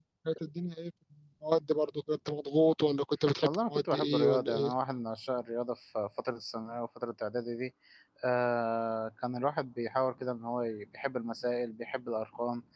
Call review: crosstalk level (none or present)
present